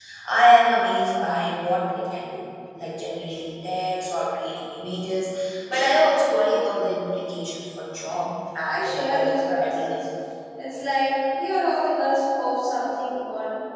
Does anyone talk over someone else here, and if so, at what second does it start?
8.6 s

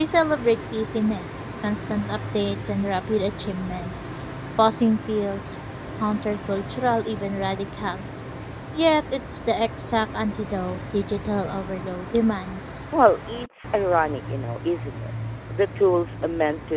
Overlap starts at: none

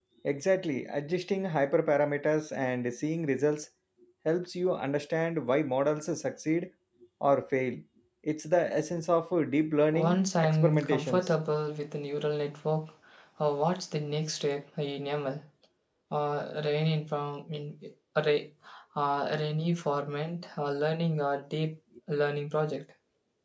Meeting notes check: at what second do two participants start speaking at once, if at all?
9.9 s

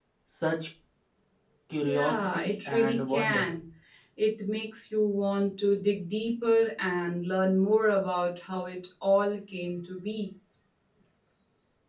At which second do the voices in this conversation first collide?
1.8 s

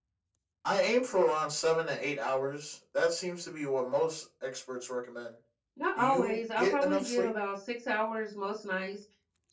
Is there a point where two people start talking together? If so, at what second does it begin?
6.0 s

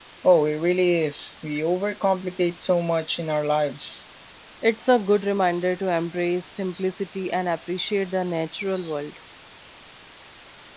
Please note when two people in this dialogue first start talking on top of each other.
none

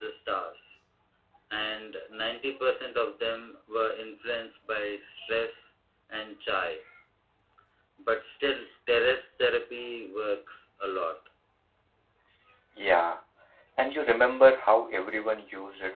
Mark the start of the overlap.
none

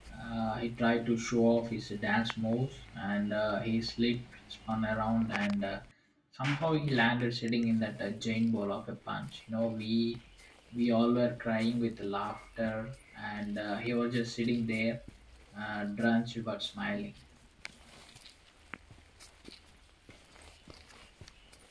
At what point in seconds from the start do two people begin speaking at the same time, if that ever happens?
none

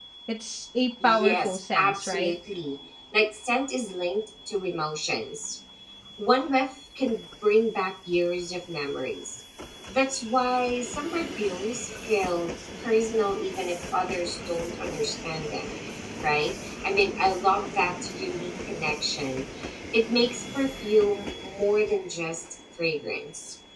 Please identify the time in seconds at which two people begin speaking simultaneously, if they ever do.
1.0 s

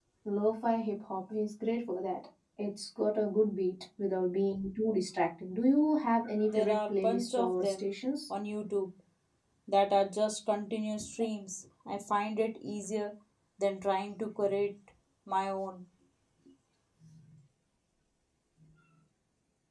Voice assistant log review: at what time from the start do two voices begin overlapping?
6.5 s

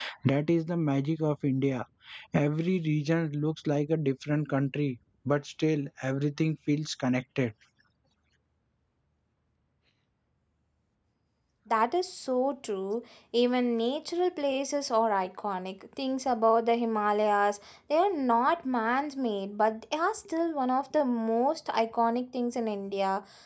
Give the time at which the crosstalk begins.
none

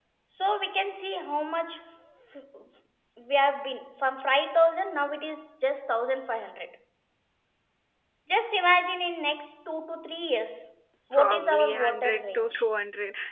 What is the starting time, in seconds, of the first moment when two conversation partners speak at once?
11.1 s

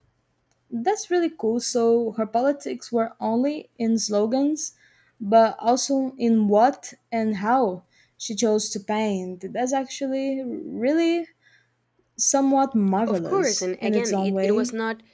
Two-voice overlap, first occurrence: 13.1 s

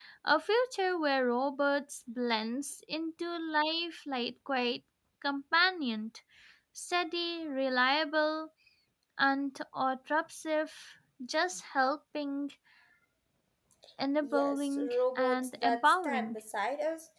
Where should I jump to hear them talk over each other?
14.2 s

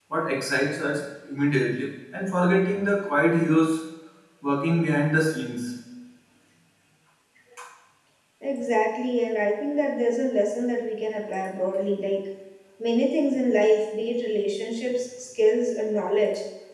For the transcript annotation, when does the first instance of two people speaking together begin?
none

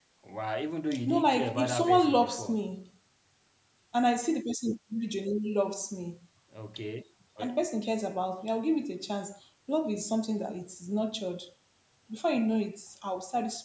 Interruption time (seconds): 1.1 s

